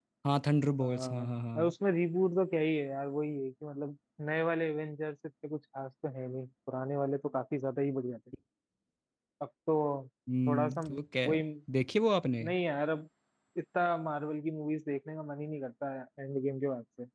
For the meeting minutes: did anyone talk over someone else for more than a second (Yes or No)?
No